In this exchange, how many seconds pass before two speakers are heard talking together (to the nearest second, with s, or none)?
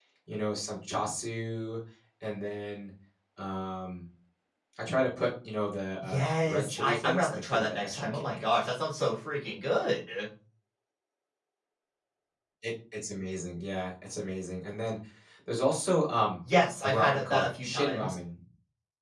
6 s